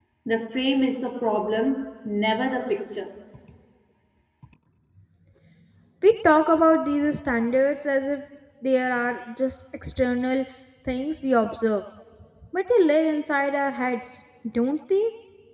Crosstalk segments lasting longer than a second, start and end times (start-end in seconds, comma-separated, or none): none